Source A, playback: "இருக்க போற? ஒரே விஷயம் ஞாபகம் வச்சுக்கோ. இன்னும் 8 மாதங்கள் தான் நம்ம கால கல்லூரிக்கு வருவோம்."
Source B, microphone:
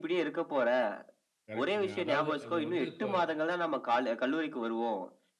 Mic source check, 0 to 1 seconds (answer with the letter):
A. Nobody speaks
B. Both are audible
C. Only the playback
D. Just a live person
C